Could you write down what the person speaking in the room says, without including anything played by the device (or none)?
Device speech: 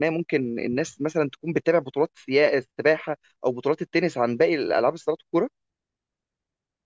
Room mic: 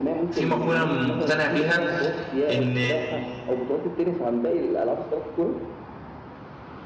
في مقوله مقتنع بيها ان